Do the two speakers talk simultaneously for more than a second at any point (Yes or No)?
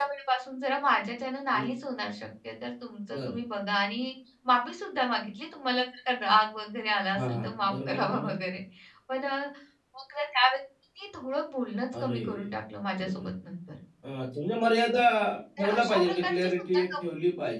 Yes